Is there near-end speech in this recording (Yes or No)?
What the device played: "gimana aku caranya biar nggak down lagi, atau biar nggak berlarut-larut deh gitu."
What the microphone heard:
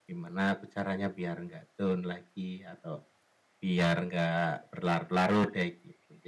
No